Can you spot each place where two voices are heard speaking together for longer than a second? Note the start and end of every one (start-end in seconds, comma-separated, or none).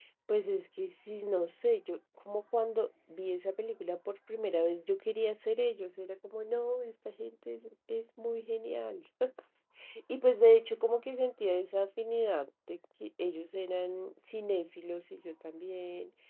none